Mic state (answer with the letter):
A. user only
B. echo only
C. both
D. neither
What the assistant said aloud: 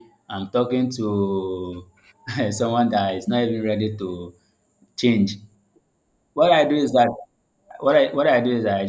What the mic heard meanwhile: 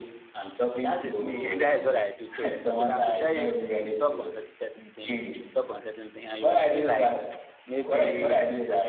C